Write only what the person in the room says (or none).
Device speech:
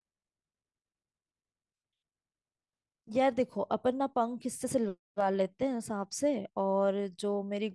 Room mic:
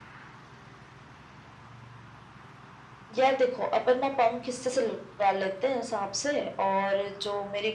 none